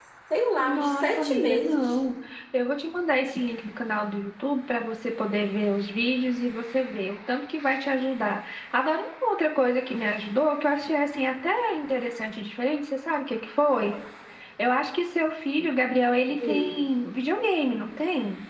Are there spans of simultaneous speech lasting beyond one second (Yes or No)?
Yes